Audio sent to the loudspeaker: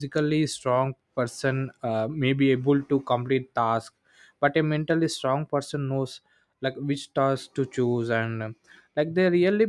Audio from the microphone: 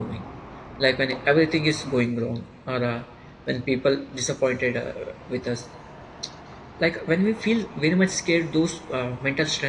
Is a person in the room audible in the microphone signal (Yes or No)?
Yes